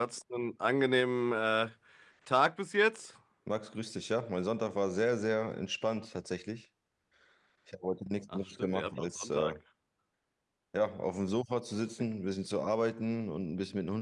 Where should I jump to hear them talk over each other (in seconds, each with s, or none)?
8.3 s